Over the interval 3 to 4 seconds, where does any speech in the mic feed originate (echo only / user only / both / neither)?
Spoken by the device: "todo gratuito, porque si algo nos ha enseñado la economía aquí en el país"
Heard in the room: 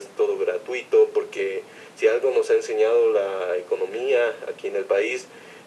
echo only